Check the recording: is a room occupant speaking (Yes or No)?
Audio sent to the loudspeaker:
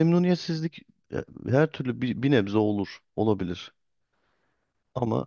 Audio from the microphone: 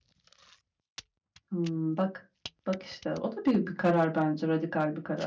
Yes